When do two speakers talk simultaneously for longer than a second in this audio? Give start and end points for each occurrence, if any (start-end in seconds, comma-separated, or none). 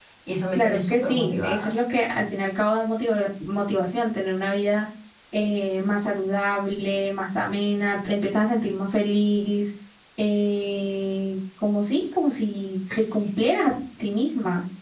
0.5-1.8